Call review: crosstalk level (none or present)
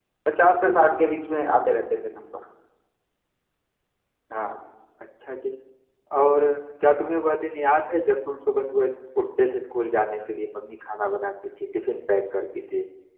none